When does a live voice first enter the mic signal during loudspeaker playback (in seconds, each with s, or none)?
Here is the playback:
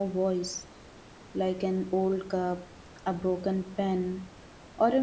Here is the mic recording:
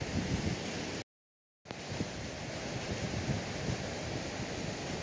none